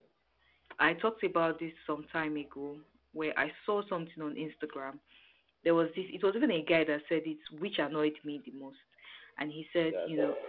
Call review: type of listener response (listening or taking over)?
listening